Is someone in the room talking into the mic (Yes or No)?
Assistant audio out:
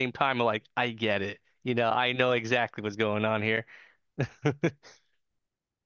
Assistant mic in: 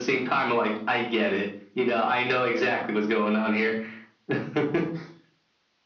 No